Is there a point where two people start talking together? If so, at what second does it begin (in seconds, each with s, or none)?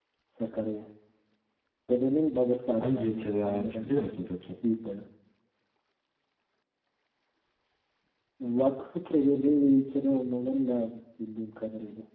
2.8 s